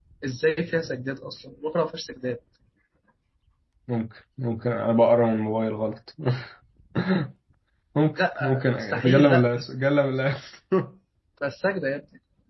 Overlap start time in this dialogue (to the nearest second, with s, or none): 8 s